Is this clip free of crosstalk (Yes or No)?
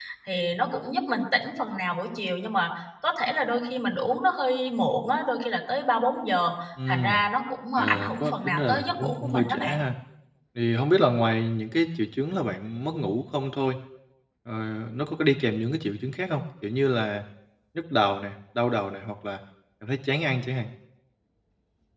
No